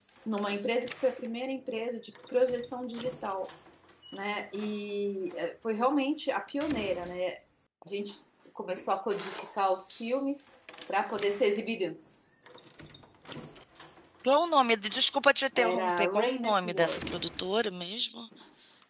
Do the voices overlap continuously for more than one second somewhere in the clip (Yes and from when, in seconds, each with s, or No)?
Yes, from 15.6 s